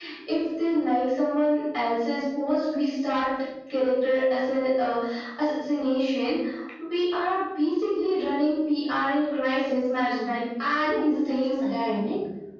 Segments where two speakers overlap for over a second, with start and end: 10.8-12.0

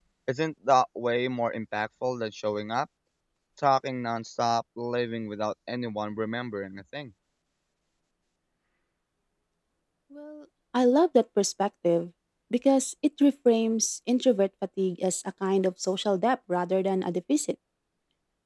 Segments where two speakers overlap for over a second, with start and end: none

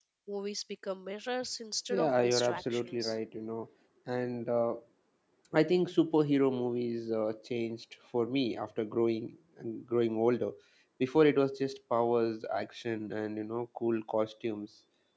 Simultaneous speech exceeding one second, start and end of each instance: 1.9-3.2

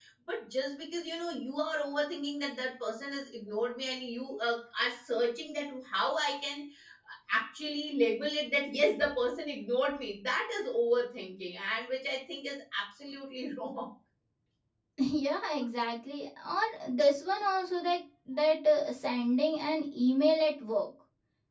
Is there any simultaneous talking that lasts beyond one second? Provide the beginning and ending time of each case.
none

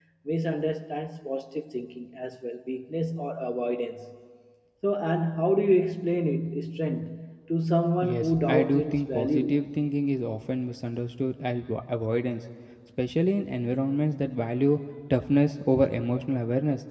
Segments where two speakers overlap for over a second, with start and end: 8.0-9.6

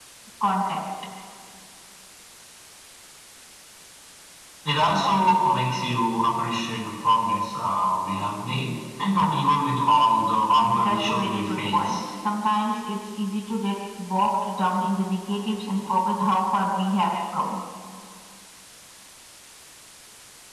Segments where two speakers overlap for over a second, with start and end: 10.6-12.0

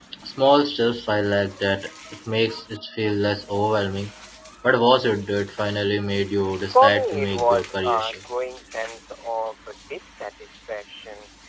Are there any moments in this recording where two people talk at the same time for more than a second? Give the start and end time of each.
6.5-8.2

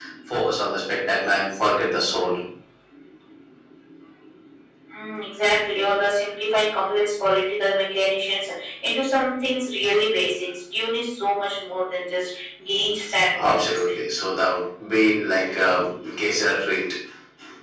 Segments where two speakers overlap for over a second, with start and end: none

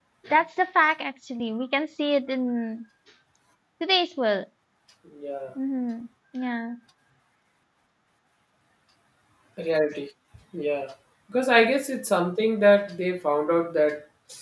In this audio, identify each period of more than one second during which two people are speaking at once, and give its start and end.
none

